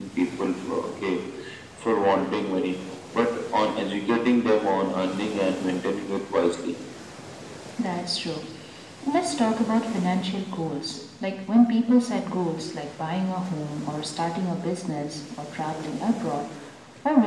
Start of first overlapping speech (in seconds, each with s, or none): none